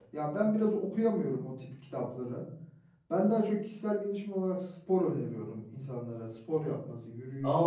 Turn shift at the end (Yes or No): Yes